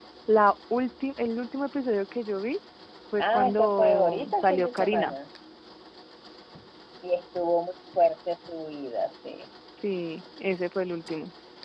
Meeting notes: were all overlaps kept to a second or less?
No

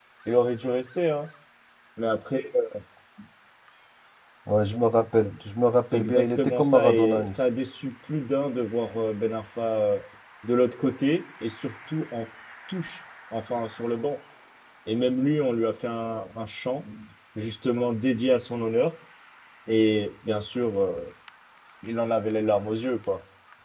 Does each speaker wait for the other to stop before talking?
No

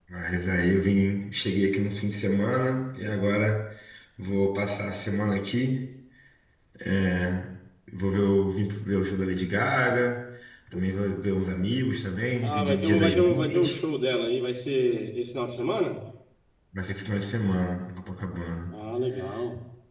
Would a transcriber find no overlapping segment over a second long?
No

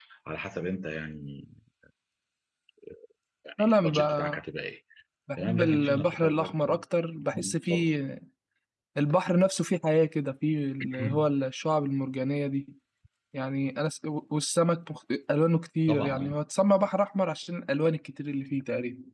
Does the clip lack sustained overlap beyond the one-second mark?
No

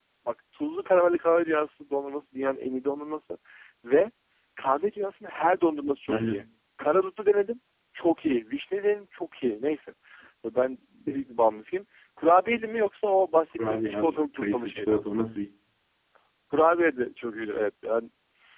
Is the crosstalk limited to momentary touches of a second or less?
No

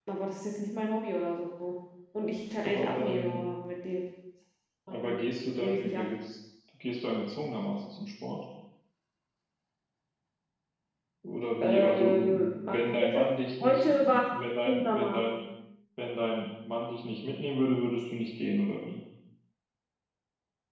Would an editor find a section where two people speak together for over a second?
Yes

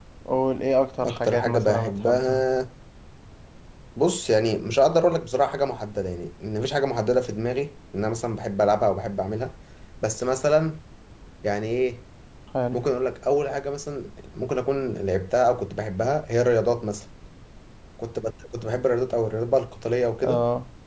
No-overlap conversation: No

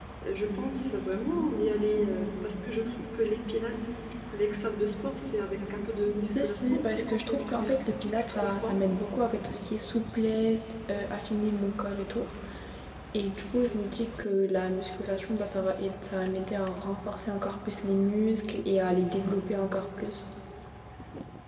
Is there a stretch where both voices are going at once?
Yes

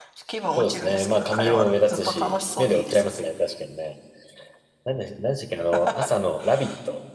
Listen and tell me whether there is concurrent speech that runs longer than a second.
Yes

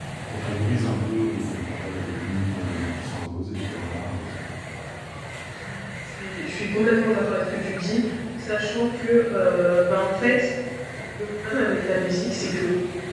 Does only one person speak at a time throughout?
Yes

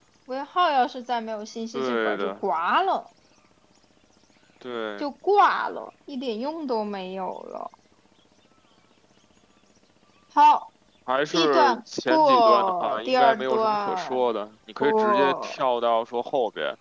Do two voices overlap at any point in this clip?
Yes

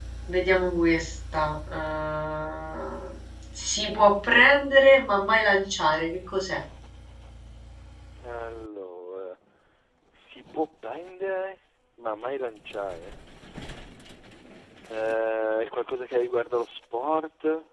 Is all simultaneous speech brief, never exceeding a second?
Yes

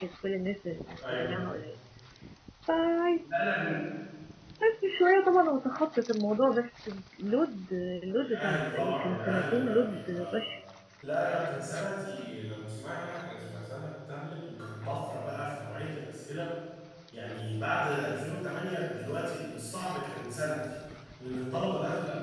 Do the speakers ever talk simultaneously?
Yes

